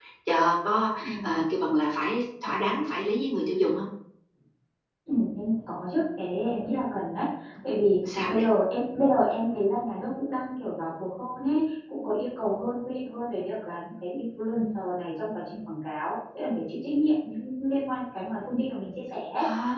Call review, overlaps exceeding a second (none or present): none